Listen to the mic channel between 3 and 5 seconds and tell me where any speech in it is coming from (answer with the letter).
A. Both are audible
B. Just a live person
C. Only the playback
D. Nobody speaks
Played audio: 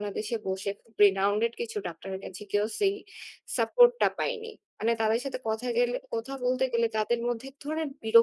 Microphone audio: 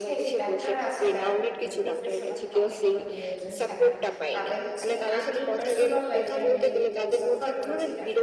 A